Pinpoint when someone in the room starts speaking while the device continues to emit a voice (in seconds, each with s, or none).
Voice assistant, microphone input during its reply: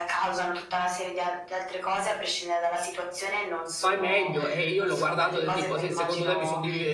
3.7 s